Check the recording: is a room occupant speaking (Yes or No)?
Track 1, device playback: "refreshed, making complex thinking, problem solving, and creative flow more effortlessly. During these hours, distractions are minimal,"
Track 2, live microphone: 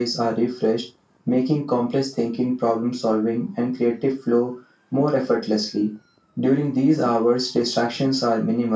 No